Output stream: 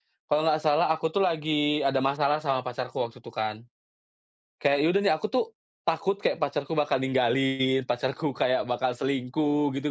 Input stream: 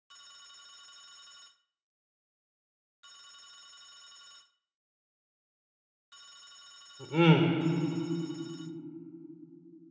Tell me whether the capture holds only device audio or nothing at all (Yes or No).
No